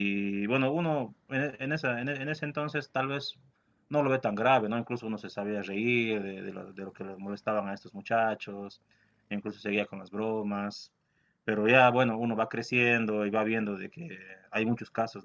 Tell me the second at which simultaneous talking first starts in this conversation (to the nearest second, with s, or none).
none